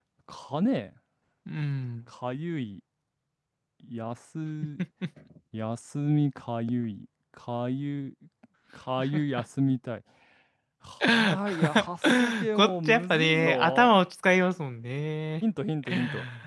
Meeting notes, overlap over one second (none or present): present